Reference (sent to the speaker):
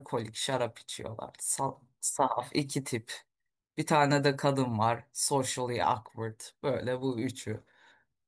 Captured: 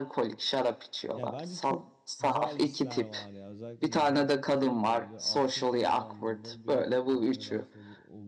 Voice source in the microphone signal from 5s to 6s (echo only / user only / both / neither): both